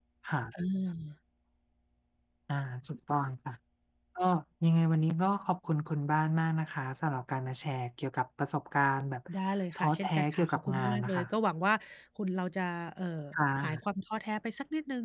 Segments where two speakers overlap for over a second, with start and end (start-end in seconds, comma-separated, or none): 9.8-11.3